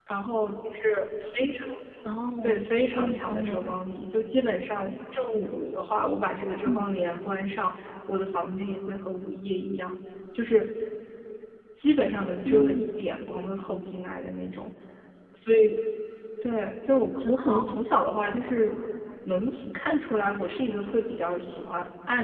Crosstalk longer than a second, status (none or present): present